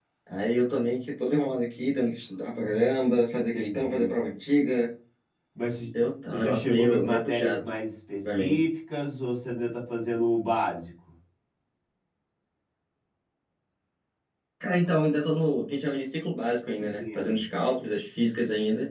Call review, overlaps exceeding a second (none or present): present